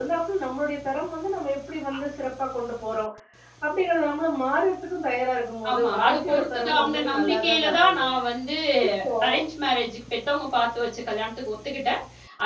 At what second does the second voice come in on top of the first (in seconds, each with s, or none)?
5.7 s